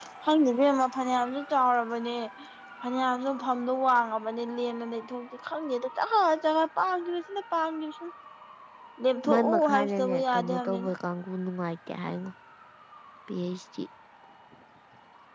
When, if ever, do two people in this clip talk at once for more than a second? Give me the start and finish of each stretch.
9.3-10.9

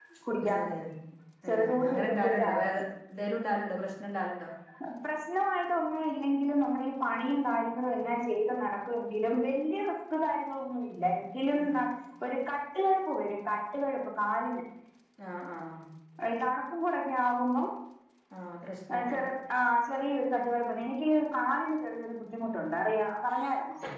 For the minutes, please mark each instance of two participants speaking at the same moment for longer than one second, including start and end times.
1.5-2.8

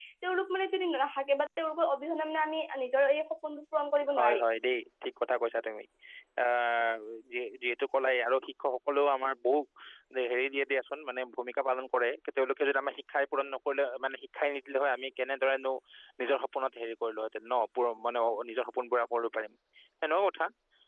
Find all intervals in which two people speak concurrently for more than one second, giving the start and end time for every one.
none

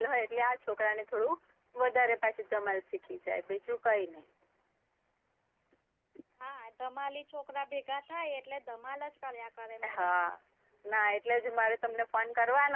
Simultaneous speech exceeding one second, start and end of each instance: none

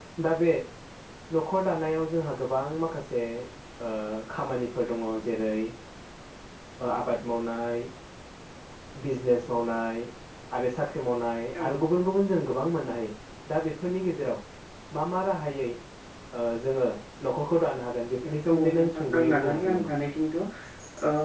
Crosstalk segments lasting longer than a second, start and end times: 18.2-19.9

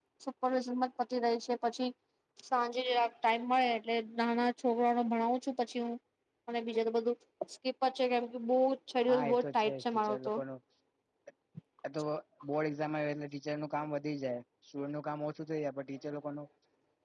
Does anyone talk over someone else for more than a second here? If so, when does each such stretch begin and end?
9.1-10.4

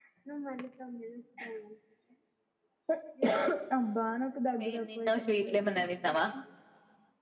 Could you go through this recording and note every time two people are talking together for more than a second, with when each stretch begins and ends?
4.7-6.1

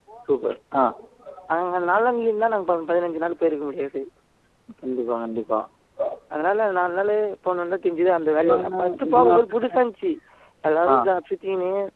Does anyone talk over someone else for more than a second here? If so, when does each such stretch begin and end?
8.4-9.8

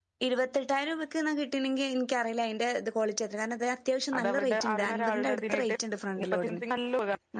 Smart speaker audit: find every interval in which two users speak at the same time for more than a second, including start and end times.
4.2-5.7

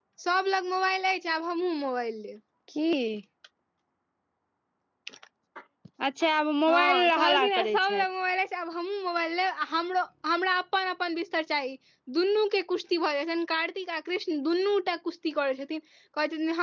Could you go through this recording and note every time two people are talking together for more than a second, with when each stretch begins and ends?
6.7-8.0

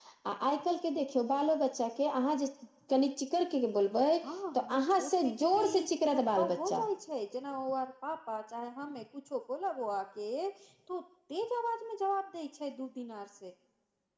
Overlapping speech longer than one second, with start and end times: 4.5-6.8

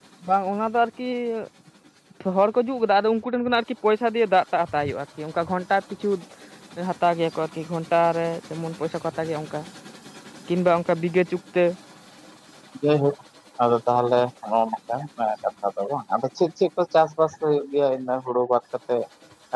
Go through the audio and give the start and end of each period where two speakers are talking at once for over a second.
none

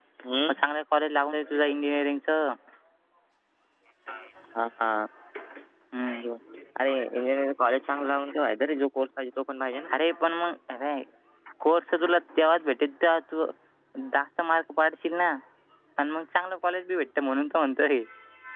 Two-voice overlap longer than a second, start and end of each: none

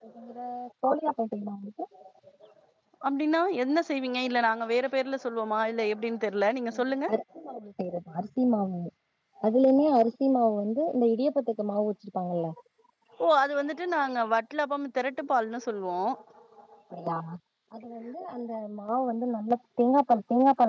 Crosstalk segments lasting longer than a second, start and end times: none

